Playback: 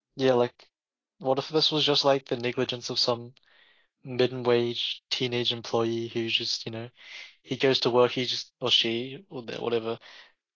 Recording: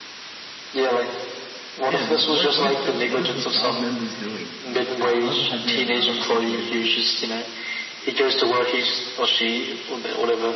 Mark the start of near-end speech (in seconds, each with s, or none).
1.8 s